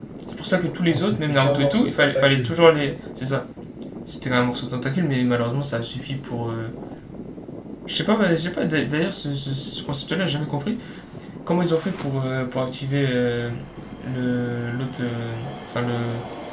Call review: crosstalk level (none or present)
present